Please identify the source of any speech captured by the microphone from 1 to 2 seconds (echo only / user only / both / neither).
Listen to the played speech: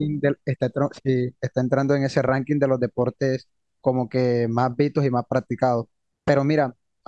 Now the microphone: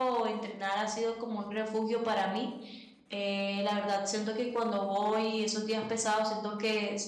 user only